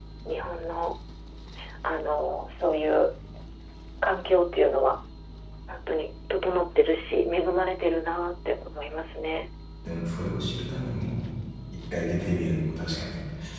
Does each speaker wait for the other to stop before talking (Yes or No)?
Yes